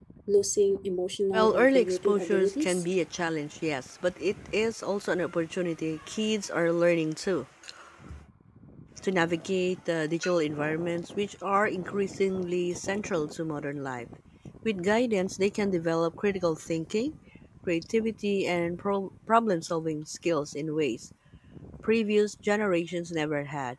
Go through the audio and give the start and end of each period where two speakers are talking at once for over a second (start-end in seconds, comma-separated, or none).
1.3-2.8